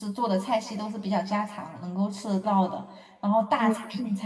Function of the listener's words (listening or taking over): listening